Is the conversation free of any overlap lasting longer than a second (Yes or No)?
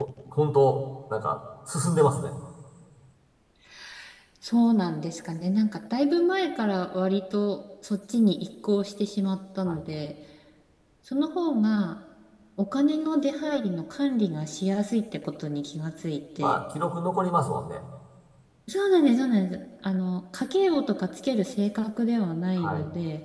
Yes